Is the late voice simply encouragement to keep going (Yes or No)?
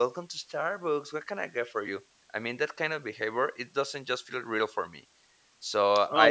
No